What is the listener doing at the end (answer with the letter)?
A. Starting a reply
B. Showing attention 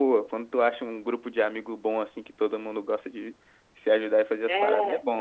A